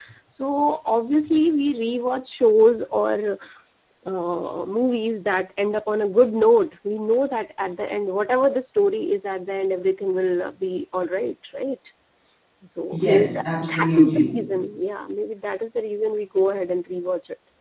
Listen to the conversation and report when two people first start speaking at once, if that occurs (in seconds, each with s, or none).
12.9 s